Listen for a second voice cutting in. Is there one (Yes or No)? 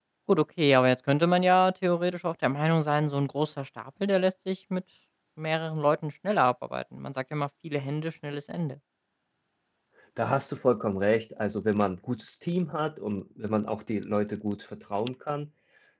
No